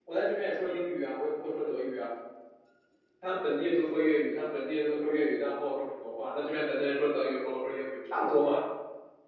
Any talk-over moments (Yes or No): No